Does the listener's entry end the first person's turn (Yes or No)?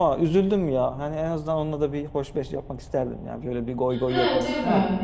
Yes